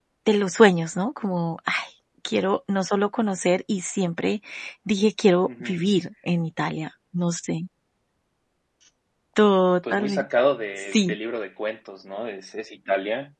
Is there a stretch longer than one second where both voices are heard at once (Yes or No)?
No